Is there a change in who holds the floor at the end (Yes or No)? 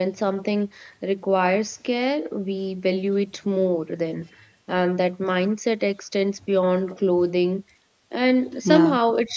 No